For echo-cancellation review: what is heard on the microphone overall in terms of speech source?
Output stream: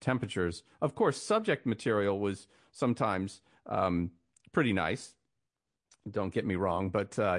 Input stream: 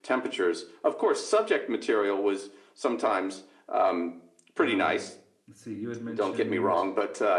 both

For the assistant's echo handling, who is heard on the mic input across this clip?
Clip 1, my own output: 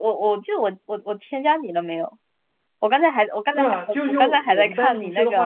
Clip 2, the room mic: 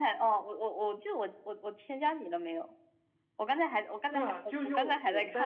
echo only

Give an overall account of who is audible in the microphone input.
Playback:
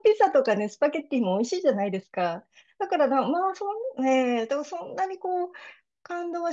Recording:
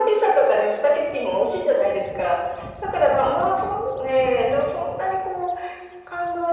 echo only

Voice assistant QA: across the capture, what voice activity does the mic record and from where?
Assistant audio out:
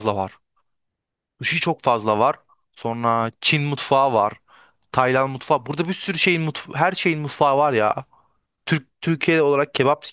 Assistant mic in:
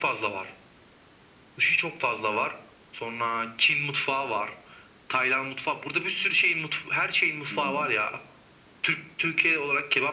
both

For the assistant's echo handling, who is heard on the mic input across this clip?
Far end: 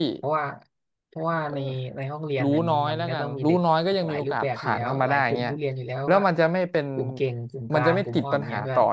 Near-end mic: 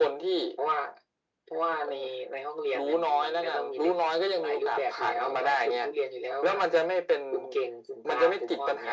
echo only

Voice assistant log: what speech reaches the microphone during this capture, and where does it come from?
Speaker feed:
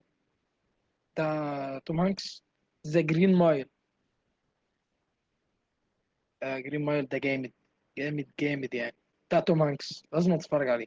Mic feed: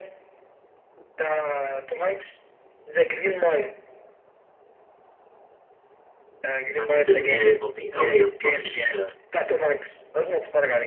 both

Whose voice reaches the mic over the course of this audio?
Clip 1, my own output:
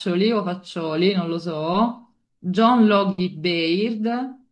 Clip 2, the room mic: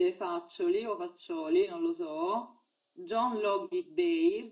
echo only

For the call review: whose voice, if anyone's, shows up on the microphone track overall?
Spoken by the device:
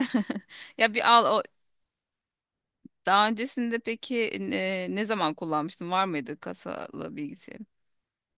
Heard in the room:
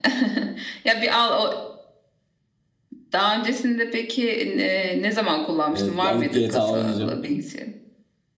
both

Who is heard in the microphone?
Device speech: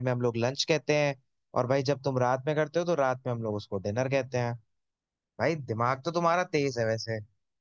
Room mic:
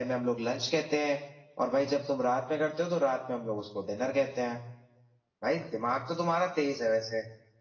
echo only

